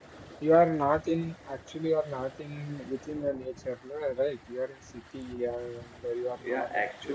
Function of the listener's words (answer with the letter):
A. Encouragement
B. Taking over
B